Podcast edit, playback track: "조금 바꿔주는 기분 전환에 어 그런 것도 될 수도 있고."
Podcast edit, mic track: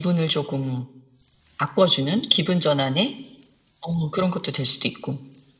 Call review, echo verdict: present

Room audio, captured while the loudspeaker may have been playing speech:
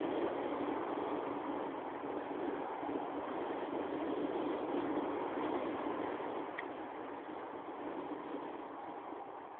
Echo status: none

